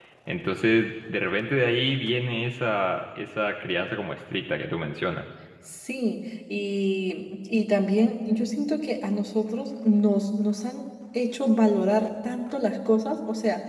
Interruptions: none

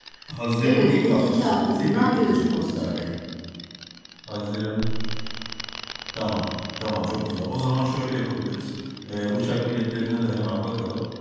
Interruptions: present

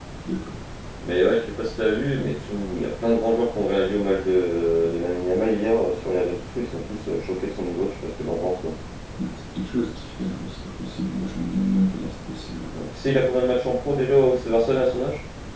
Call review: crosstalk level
none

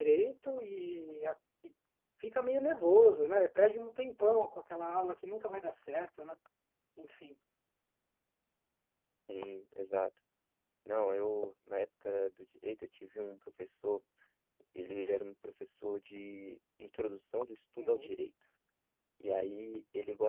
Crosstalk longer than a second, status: none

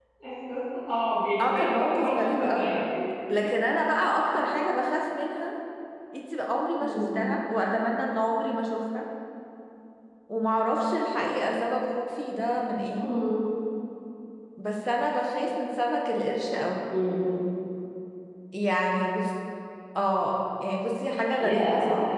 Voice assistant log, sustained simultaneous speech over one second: present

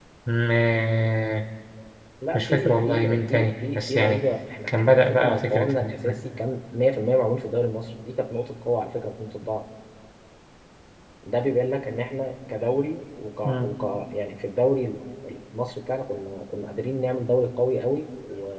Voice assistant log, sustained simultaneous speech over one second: present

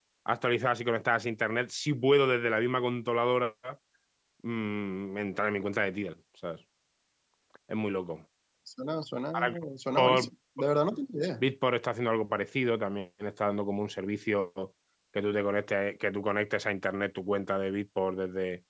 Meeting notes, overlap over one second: none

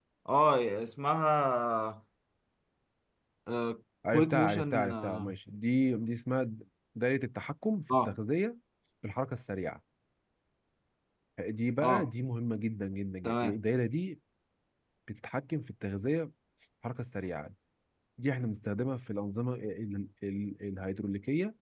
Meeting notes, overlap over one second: present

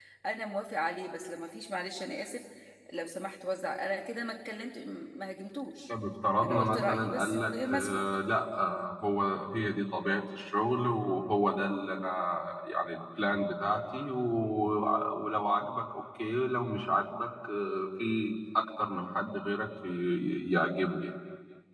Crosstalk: present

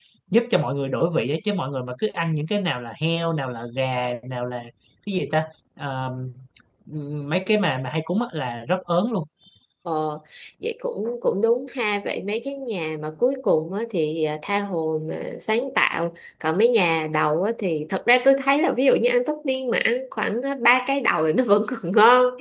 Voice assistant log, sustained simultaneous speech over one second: none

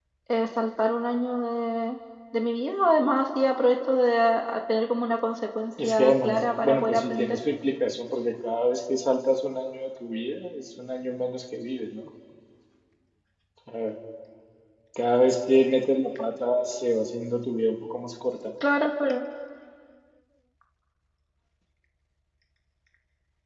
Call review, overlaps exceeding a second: present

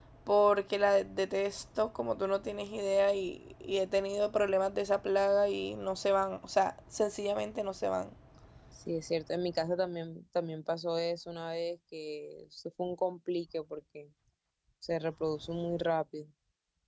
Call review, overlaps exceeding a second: none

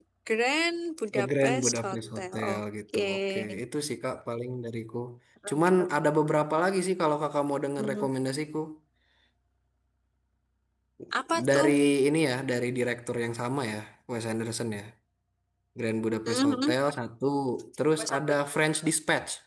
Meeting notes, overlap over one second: present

